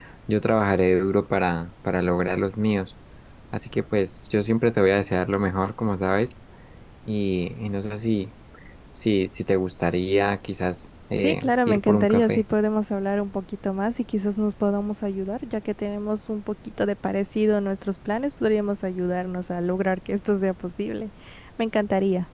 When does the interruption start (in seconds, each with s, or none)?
11.2 s